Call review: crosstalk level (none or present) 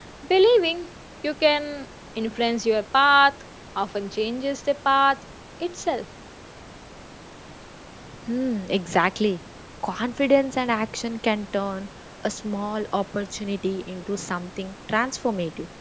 none